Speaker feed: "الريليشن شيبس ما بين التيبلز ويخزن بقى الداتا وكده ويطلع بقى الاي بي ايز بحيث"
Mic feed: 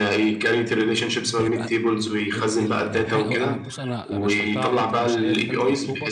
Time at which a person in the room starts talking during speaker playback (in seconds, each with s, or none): 1.4 s